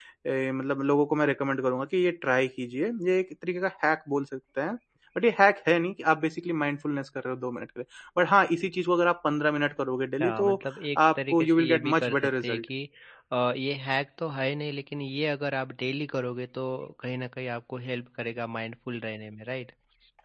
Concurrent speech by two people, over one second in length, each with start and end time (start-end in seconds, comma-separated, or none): 11.2-12.7